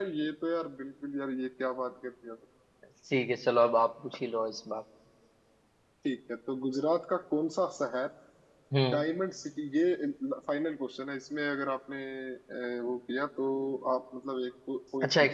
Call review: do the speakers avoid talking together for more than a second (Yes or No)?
Yes